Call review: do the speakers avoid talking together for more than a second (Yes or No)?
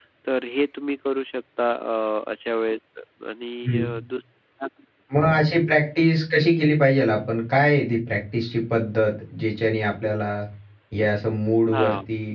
Yes